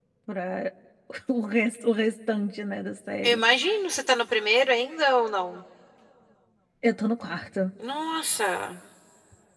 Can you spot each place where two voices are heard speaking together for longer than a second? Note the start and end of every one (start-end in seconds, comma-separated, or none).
none